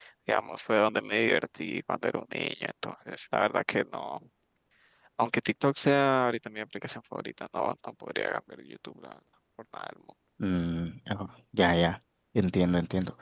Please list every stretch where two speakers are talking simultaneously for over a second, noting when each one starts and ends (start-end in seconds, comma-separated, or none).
none